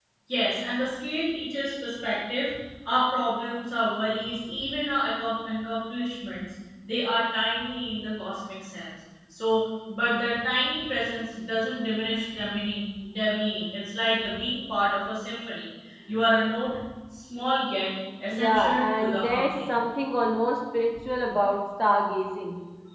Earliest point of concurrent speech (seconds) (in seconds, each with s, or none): 18.3 s